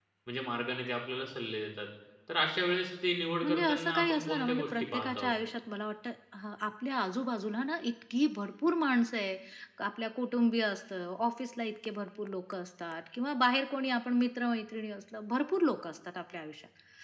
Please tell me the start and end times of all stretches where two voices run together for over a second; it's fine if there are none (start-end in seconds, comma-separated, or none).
3.4-5.3